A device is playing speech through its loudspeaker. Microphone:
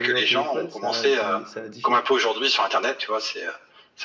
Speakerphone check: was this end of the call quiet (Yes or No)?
No